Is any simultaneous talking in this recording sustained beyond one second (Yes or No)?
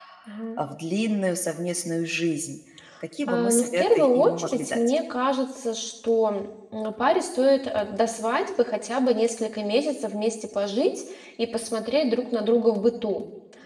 Yes